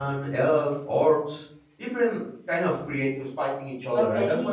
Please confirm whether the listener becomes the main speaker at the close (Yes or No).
No